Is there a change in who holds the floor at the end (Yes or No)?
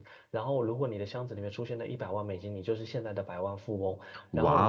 No